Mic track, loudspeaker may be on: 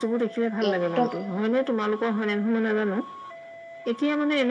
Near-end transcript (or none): একদম